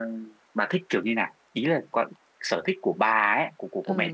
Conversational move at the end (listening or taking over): taking over